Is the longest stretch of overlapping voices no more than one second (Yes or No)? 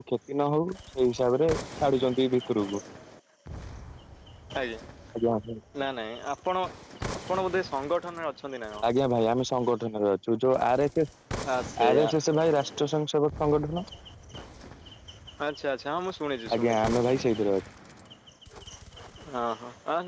Yes